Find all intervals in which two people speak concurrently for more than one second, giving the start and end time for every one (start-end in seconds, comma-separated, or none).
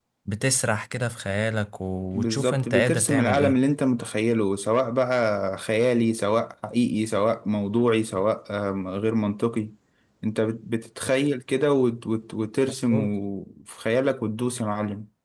2.1-3.6